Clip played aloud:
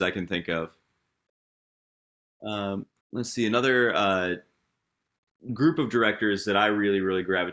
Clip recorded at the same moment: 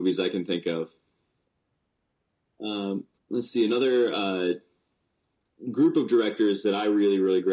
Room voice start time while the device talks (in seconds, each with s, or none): none